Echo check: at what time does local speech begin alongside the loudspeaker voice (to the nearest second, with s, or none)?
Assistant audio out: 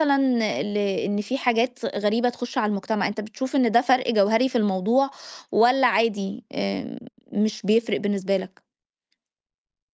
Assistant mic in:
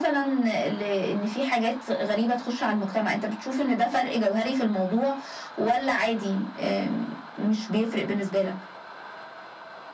none